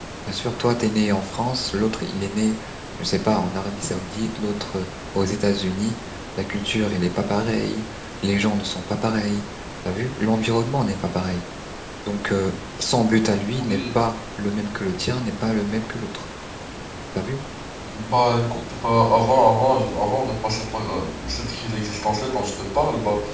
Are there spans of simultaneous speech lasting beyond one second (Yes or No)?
No